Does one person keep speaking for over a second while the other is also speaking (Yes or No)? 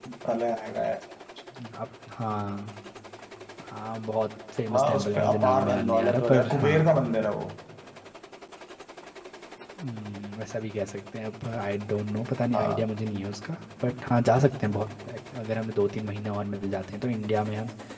Yes